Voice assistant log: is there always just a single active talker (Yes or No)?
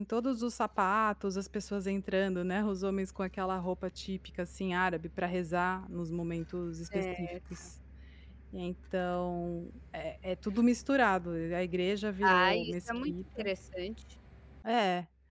No